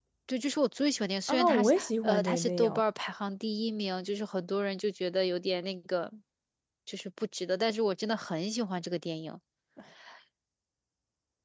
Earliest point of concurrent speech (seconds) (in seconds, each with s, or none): 1.3 s